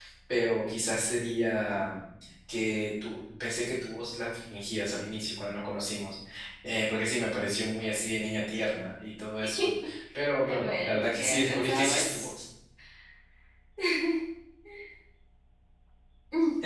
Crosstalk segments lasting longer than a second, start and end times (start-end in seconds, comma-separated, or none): 10.4-12.3